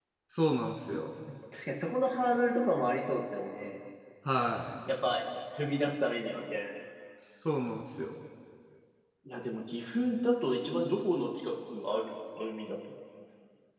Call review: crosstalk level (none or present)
none